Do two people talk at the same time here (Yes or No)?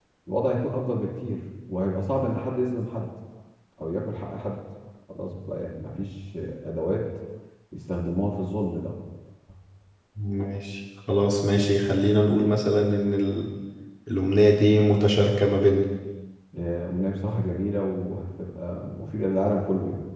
No